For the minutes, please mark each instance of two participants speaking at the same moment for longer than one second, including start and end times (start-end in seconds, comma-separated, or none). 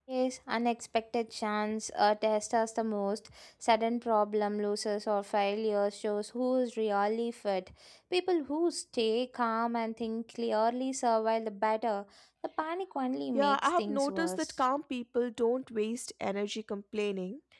13.3-14.6